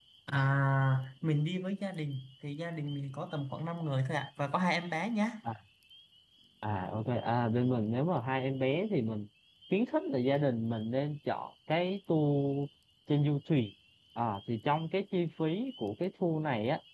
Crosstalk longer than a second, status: none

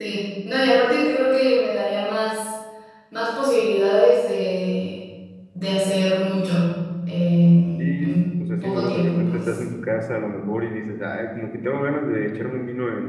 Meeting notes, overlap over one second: present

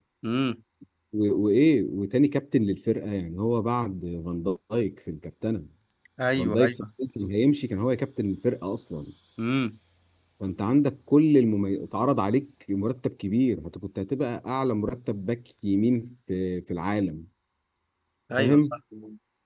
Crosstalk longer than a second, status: none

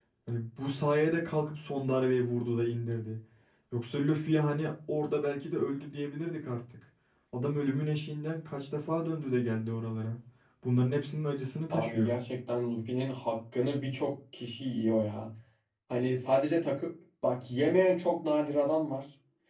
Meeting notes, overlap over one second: none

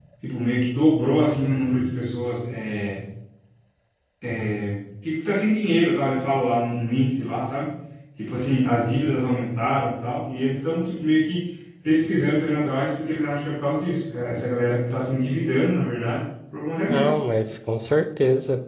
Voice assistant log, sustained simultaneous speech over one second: none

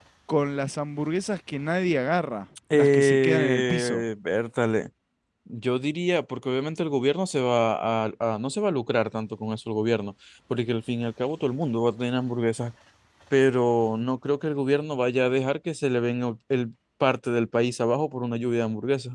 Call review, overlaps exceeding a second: present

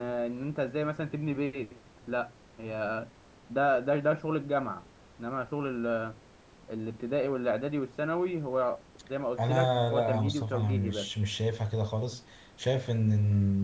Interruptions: present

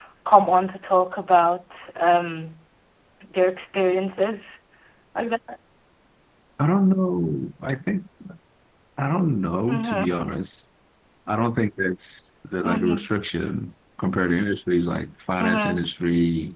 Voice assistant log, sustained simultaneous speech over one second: none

